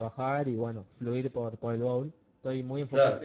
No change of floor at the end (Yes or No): Yes